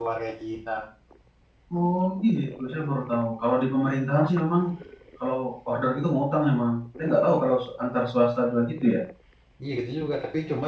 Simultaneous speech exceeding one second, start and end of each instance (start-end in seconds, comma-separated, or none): none